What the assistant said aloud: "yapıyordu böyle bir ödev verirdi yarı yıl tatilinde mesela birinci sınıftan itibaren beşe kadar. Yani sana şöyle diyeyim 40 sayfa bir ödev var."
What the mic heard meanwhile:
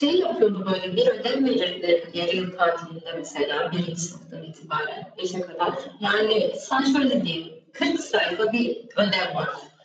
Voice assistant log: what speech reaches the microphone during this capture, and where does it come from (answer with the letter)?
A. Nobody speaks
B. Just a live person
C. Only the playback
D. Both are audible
C